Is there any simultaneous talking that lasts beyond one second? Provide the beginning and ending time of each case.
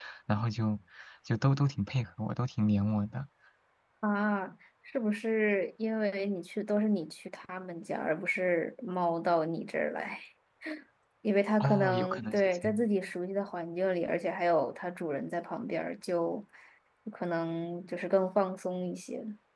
11.6-12.8

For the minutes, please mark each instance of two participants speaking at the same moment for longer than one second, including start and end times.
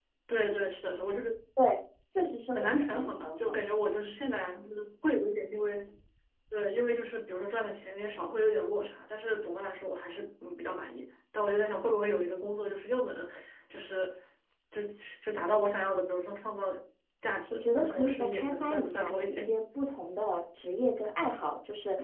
2.2-3.6, 17.5-19.5

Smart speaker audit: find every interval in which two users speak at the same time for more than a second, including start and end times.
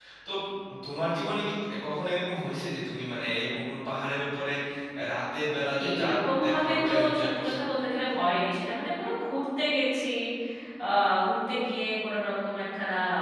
5.8-7.6

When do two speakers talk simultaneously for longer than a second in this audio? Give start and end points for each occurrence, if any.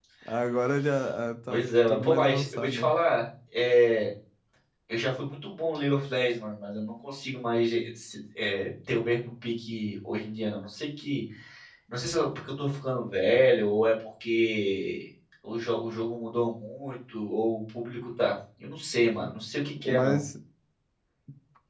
1.5-3.0

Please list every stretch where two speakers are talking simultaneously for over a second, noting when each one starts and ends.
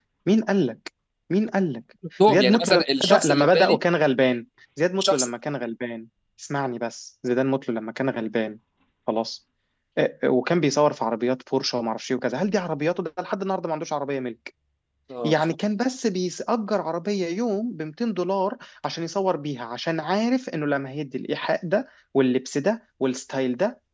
2.3-3.8

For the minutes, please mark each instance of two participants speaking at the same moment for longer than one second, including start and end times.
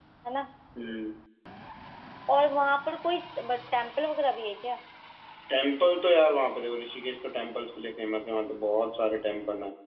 none

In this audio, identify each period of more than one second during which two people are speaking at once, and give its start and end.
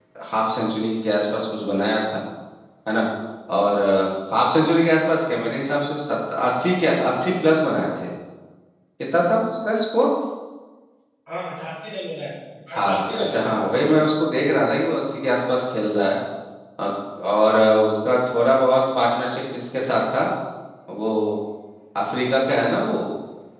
12.7-13.9

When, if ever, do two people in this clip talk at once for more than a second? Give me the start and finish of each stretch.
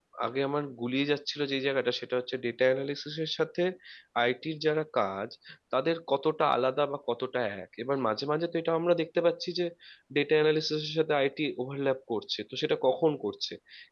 none

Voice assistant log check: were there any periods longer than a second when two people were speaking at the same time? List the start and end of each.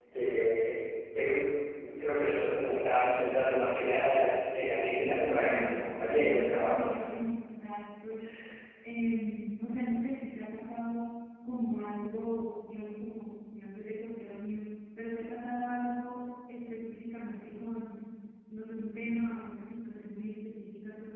4.9-6.9

